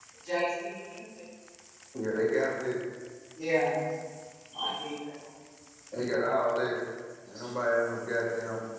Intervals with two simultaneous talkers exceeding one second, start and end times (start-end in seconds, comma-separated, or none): none